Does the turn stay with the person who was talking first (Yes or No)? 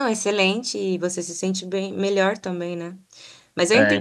No